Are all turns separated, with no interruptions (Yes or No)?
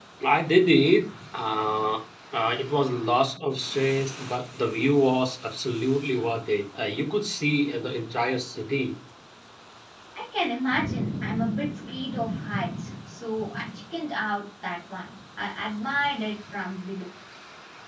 Yes